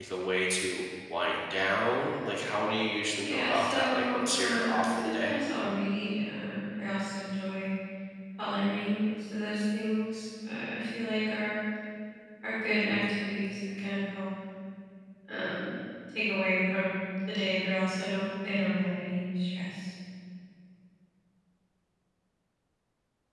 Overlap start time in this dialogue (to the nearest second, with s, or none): 3 s